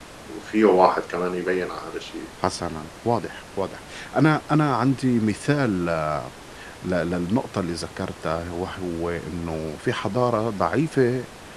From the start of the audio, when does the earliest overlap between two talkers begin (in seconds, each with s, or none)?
none